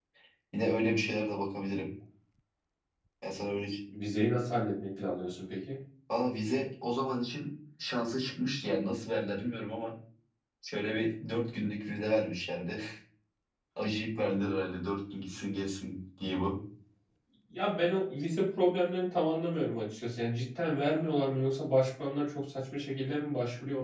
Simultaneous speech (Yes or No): No